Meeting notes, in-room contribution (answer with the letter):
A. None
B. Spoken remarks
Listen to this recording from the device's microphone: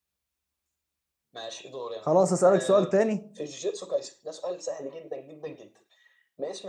B